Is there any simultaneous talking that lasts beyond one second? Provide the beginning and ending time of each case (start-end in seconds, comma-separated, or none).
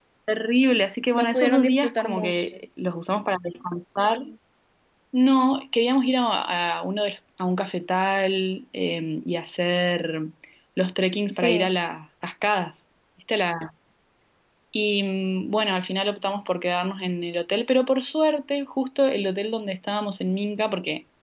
1.1-2.4